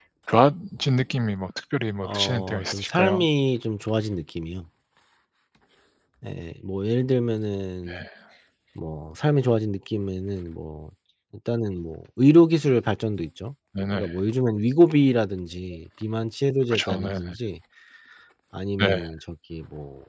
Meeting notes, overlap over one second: present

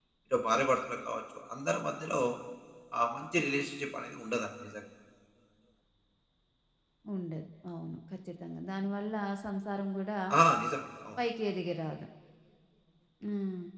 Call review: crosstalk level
none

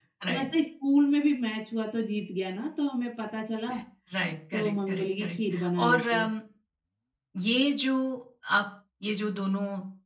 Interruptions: present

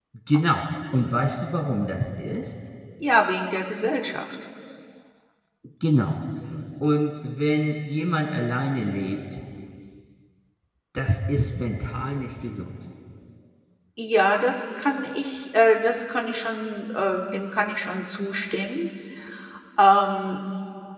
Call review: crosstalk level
none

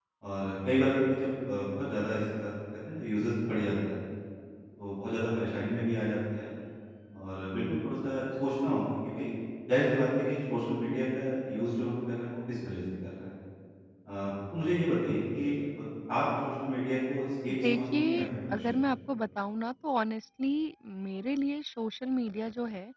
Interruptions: present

